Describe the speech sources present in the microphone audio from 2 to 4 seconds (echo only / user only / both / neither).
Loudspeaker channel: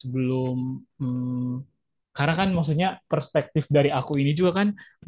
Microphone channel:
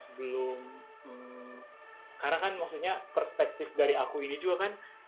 echo only